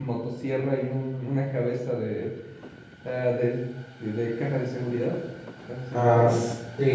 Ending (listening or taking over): taking over